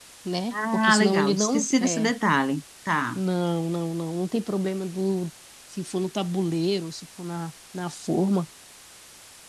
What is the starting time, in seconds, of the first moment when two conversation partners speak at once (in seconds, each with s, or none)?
0.5 s